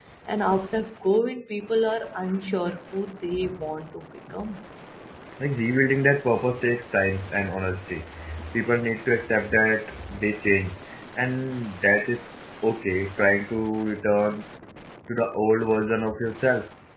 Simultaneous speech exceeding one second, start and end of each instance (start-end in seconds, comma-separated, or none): none